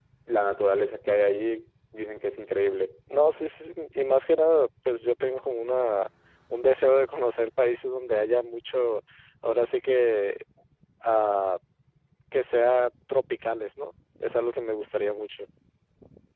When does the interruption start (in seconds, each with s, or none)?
none